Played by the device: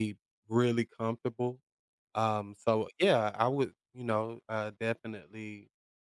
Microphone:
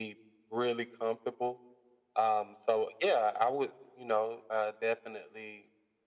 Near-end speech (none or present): none